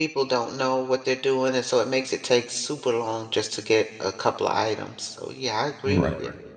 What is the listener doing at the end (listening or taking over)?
taking over